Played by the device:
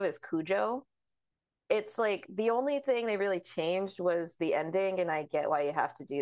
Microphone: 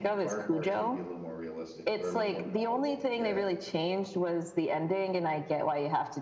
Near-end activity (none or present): present